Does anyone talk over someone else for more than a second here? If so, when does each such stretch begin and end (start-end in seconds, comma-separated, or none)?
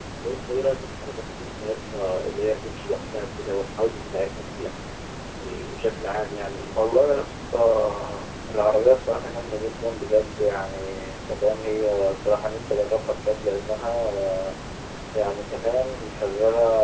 none